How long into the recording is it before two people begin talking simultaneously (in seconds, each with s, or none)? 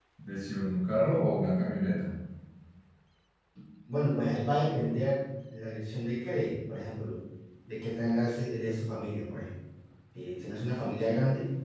none